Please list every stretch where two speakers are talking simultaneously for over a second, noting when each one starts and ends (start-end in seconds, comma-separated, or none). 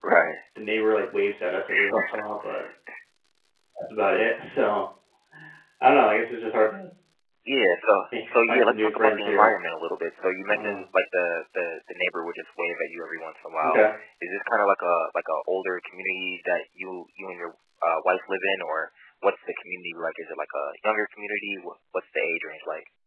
8.3-9.5